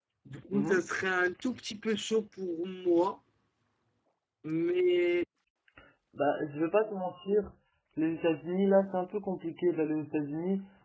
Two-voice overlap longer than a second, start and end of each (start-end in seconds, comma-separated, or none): none